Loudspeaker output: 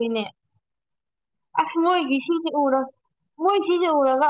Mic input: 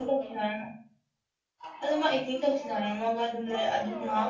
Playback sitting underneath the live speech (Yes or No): Yes